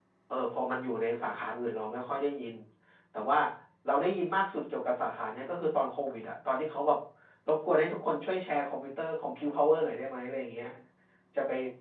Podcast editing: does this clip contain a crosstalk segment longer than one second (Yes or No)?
No